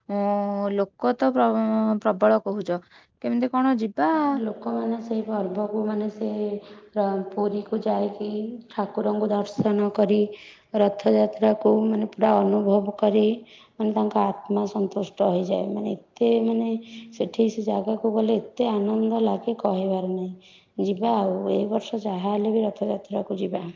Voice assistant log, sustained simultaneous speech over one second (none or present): none